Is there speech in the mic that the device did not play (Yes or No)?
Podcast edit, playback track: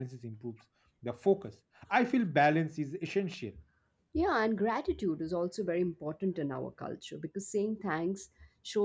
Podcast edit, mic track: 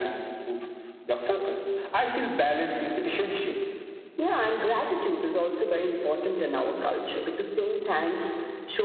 No